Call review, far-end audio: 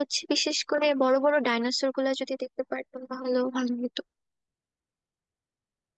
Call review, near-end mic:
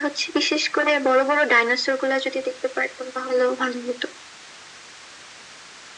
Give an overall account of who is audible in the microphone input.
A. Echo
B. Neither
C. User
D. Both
A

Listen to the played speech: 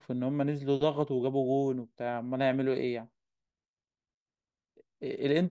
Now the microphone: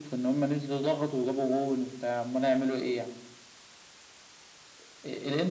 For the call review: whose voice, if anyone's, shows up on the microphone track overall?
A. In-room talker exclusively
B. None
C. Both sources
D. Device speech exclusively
D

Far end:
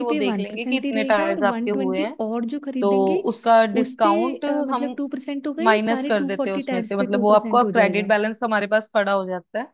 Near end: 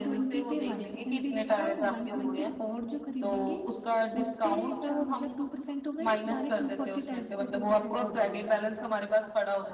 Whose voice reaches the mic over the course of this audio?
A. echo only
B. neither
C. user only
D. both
A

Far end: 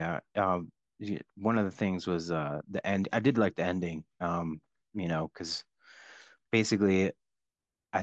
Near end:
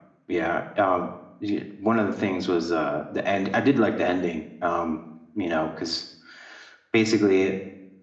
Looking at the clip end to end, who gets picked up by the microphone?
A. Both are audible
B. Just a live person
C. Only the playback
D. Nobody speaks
C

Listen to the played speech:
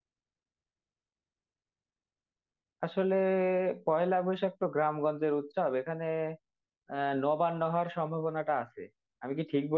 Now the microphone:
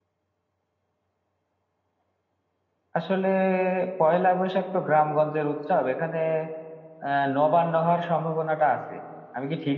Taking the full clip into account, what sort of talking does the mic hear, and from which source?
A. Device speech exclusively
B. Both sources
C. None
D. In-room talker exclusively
A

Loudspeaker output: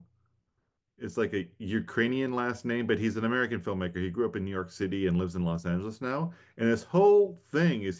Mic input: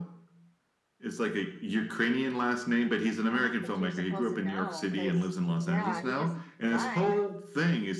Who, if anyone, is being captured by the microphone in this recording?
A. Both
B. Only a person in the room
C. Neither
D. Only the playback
A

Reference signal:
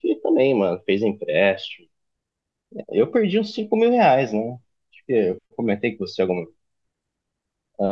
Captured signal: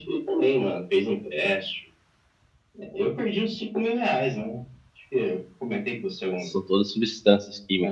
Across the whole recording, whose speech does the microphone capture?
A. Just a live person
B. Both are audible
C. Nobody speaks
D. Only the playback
B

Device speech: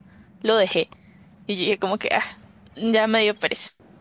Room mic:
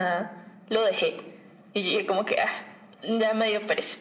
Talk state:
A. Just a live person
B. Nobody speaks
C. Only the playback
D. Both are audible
C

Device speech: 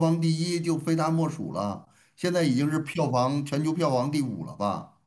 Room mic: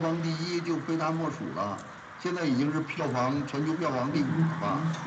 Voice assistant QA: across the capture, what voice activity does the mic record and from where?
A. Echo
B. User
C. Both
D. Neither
C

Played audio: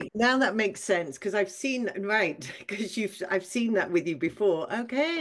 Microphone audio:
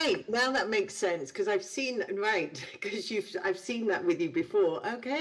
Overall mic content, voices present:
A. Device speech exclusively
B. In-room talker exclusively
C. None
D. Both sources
A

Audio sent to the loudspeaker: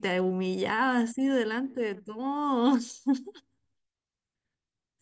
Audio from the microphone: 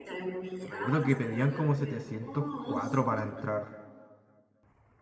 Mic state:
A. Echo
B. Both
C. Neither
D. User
B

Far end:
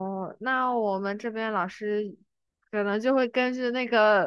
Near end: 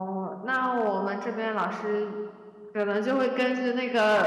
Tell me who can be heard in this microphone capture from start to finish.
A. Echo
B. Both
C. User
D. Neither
A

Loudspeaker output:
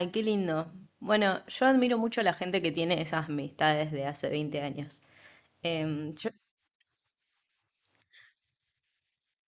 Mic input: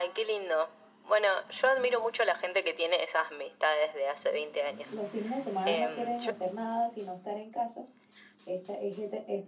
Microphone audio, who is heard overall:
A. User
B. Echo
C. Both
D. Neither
C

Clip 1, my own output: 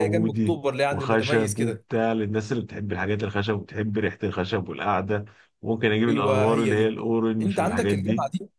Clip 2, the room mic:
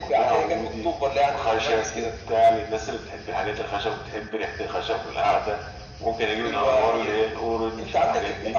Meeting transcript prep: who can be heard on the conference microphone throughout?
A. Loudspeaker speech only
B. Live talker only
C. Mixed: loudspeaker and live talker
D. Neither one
A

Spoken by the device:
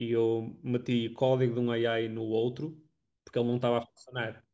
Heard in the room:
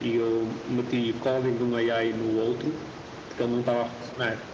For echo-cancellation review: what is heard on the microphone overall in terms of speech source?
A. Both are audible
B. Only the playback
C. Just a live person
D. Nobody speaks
B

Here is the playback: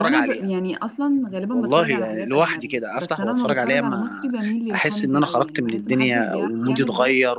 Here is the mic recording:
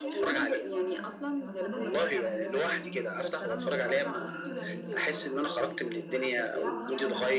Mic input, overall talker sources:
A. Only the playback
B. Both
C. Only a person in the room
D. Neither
B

